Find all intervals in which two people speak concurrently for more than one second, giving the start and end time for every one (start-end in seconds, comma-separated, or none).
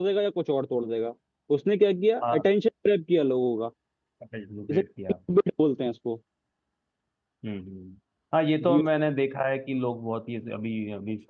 none